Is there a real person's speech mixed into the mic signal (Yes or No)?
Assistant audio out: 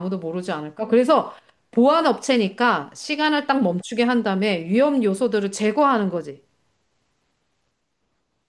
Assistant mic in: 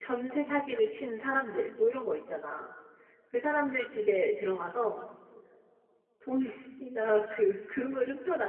Yes